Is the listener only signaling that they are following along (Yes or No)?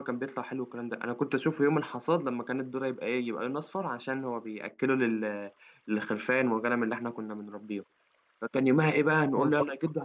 Yes